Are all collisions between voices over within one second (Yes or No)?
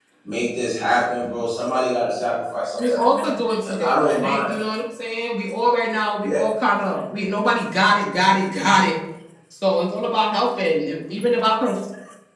No